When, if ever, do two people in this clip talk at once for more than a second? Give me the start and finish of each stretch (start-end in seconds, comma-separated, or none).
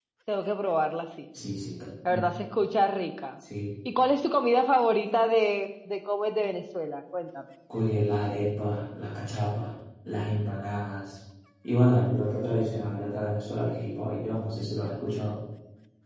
none